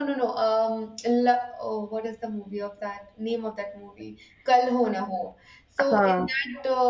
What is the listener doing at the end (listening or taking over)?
listening